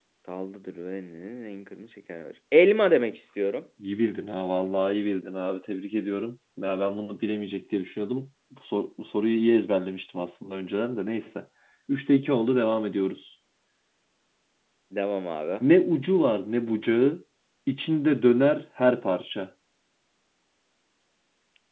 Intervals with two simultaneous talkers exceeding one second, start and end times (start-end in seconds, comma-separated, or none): none